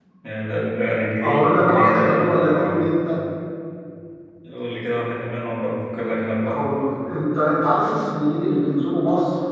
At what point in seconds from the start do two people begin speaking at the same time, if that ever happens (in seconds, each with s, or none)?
1.2 s